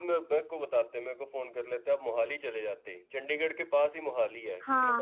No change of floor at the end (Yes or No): Yes